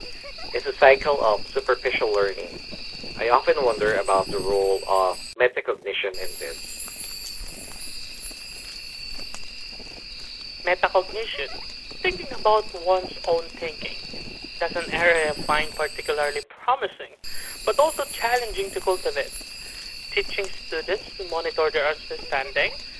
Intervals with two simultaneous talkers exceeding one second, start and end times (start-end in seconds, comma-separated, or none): none